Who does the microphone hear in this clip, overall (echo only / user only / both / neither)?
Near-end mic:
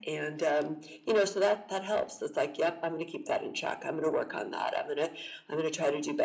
echo only